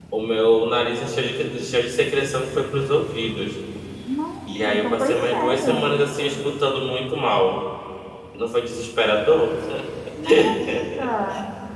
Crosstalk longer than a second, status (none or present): present